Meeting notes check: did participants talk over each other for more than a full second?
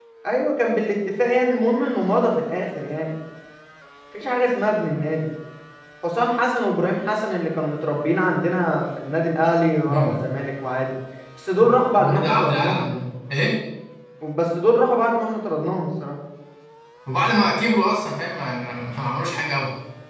Yes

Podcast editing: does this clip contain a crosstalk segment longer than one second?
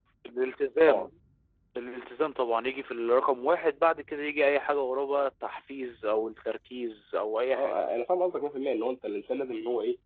No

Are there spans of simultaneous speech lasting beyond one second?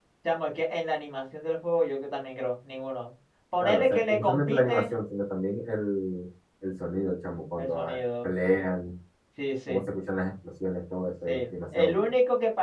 Yes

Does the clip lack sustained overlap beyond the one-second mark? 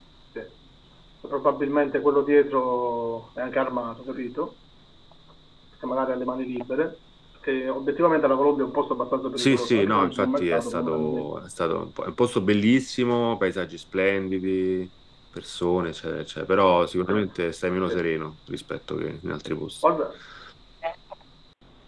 No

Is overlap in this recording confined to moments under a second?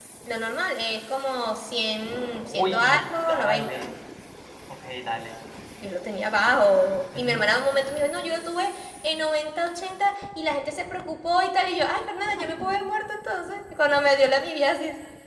No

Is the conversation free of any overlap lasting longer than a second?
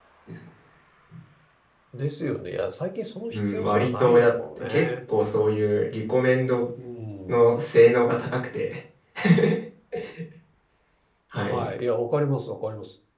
No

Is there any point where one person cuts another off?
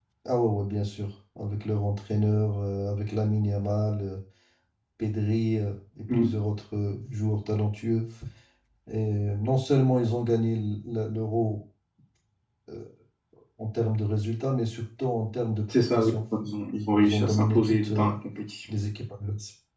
Yes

